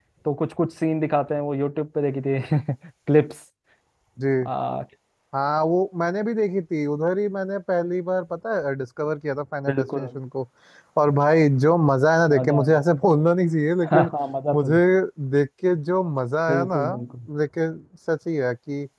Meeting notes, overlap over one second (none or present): none